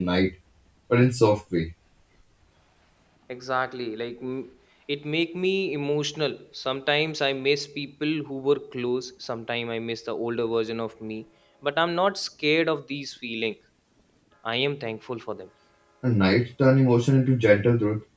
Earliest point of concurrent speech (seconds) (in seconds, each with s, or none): none